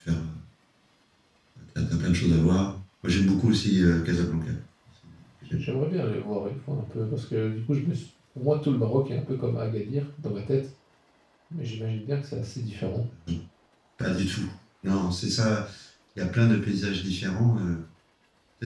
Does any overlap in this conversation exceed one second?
No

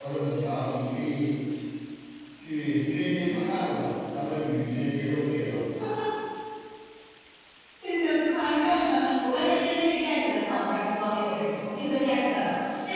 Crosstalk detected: No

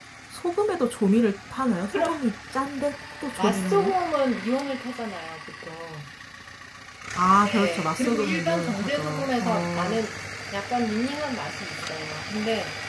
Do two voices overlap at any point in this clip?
Yes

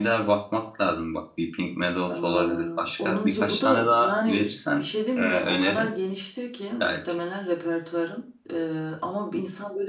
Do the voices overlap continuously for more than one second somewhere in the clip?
Yes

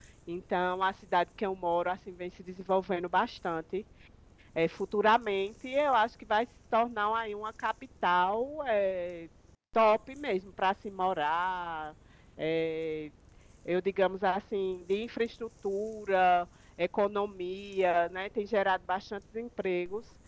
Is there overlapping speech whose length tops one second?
No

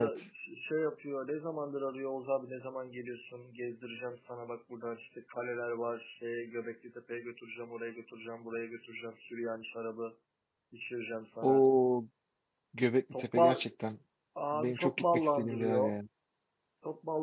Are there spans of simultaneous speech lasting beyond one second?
Yes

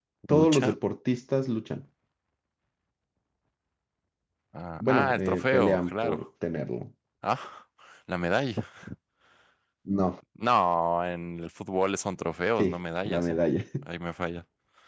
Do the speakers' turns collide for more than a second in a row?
Yes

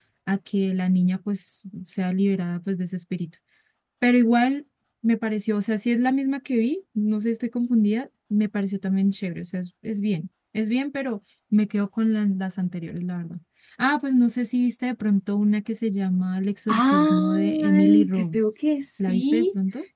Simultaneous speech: Yes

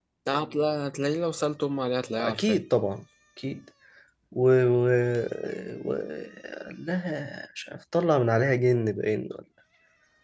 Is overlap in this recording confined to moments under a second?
Yes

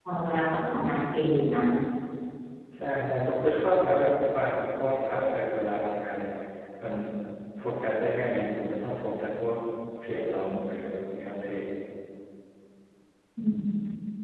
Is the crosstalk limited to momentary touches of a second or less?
Yes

